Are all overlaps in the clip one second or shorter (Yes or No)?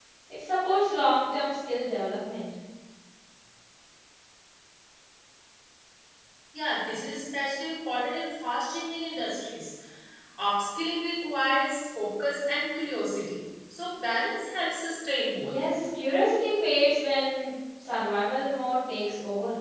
Yes